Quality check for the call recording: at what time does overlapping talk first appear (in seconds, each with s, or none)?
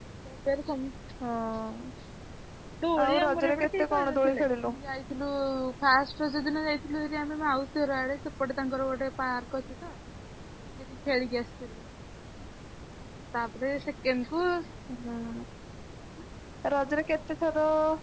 3.0 s